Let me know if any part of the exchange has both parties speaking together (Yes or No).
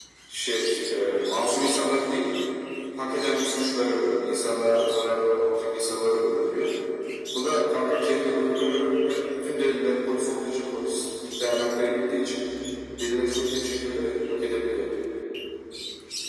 No